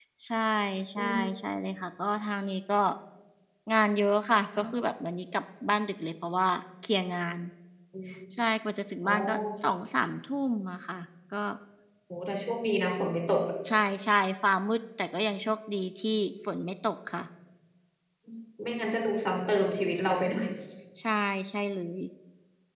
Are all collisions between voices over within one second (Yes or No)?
Yes